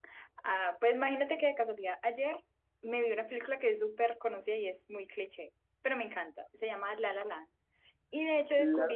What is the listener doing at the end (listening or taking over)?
listening